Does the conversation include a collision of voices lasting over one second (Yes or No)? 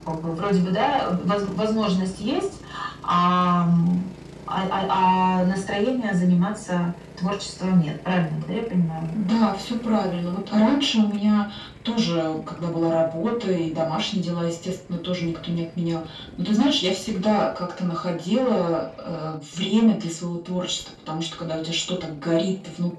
No